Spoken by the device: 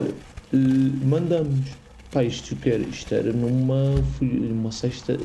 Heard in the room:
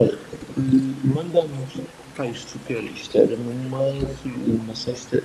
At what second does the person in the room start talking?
none

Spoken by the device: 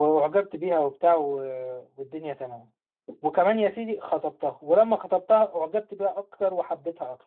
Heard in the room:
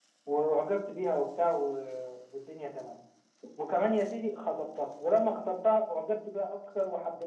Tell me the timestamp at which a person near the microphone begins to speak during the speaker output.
none

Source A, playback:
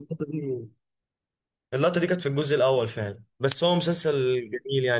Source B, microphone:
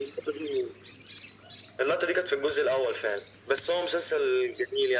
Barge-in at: none

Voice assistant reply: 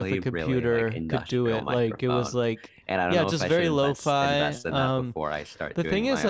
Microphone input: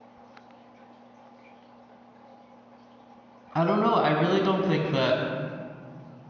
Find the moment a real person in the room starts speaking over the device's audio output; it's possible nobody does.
3.5 s

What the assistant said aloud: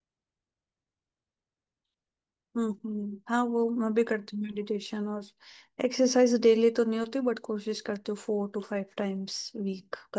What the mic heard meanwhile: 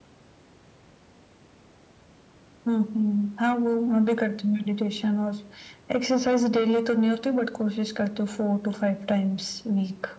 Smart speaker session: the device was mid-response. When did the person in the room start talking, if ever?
none

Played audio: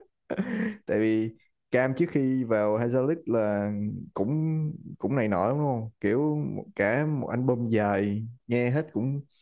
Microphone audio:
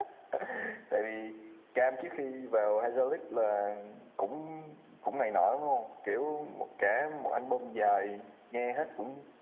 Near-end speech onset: none

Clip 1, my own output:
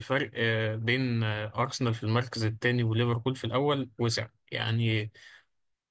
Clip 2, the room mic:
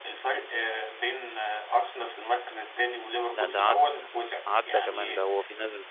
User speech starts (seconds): 3.3 s

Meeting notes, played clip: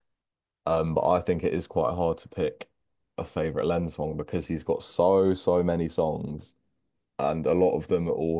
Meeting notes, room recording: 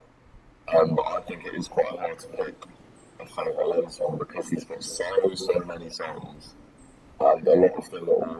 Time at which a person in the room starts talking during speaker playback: none

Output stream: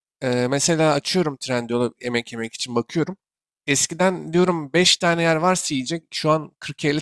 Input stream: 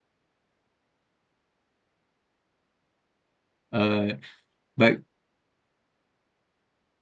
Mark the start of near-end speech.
3.7 s

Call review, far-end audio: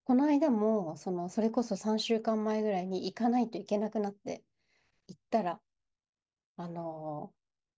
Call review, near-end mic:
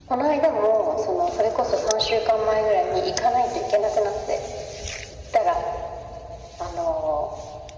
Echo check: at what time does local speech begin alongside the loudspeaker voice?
none

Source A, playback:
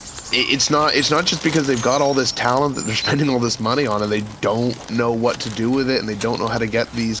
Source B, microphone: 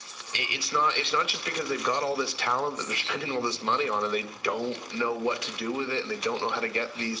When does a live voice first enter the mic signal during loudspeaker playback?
none

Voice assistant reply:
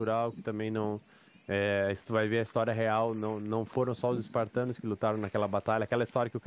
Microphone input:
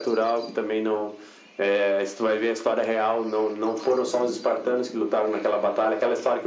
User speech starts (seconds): none

